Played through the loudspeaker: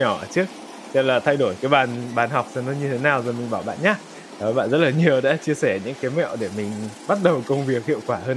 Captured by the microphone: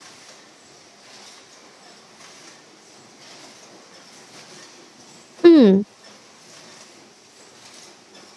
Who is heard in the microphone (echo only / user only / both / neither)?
user only